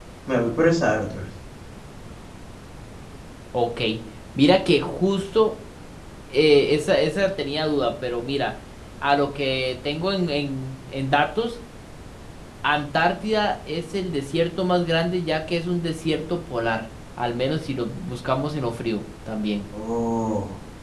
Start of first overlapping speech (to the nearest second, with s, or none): none